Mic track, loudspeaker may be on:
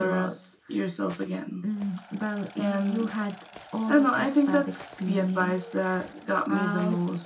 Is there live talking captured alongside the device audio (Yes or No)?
No